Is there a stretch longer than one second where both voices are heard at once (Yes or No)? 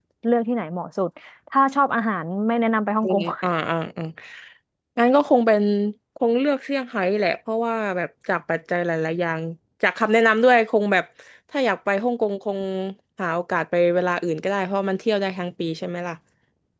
No